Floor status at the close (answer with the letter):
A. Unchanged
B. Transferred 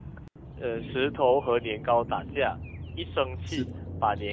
A